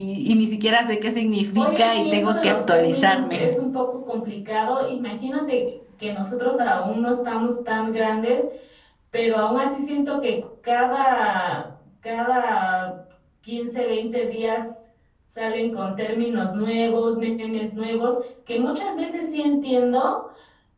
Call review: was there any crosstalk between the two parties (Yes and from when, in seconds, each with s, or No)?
Yes, from 1.6 s